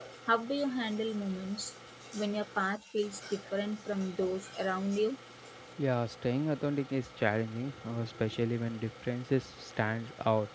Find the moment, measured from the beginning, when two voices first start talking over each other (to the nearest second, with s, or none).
none